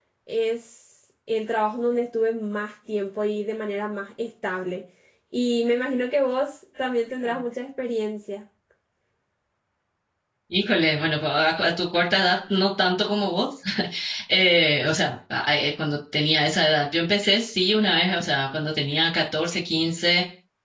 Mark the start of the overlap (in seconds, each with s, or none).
none